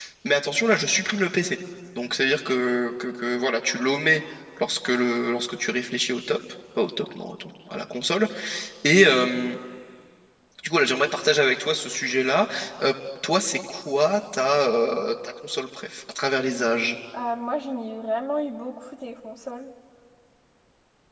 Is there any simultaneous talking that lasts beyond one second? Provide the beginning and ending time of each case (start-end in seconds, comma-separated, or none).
none